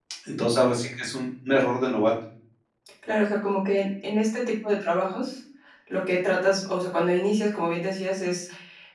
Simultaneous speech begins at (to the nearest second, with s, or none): none